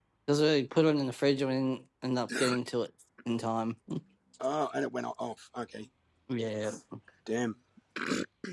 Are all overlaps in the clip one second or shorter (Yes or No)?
Yes